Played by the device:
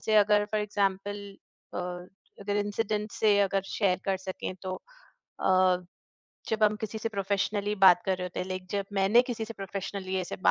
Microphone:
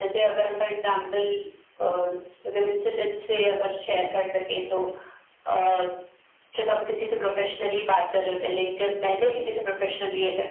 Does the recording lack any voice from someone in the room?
Yes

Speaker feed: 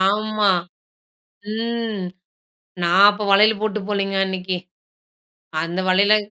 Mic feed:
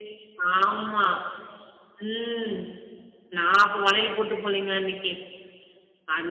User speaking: No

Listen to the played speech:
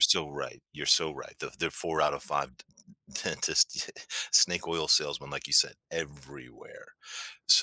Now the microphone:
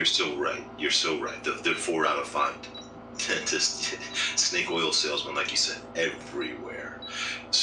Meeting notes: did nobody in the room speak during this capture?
Yes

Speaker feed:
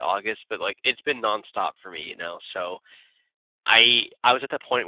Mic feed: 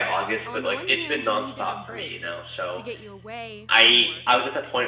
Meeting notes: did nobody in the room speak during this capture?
No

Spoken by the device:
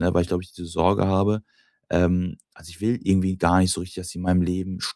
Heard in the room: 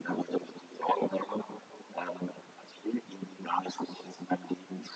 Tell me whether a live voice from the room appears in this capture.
No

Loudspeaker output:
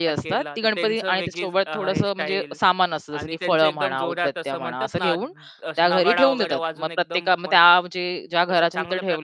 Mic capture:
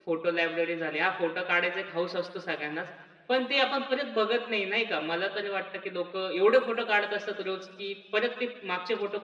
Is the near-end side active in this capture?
Yes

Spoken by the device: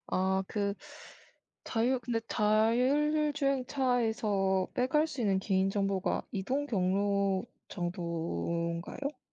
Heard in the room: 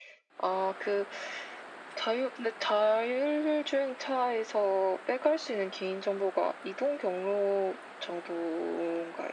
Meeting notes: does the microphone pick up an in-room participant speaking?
No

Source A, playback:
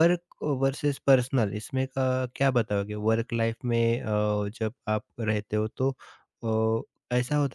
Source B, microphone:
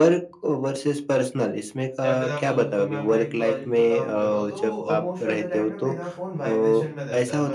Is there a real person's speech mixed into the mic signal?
Yes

